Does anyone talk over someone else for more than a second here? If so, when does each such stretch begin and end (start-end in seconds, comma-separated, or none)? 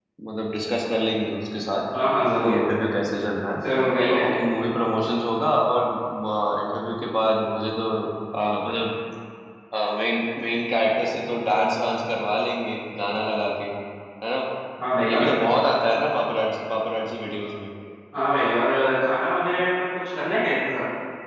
none